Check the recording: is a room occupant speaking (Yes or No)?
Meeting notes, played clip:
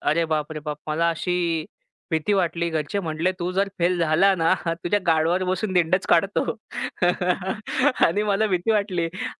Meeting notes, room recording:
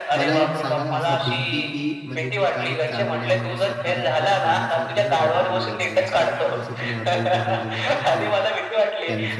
Yes